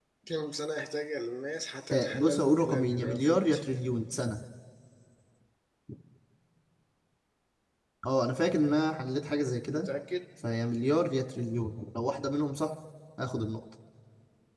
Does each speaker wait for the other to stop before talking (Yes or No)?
No